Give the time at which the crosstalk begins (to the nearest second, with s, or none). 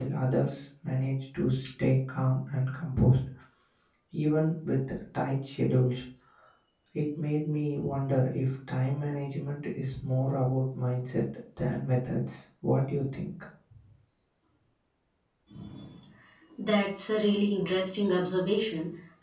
none